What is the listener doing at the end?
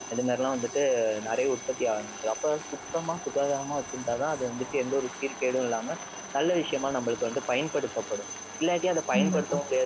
listening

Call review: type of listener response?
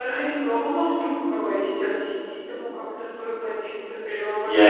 taking over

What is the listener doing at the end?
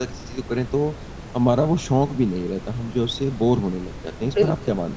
taking over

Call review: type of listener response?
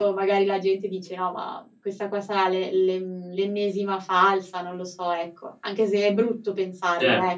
taking over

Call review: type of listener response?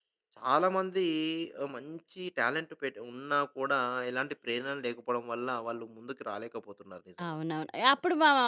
taking over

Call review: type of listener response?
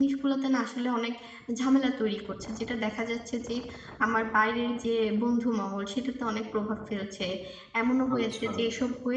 listening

